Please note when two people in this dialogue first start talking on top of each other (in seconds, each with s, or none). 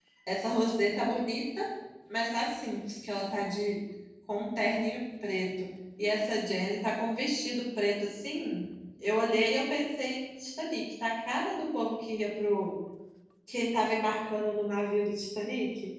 none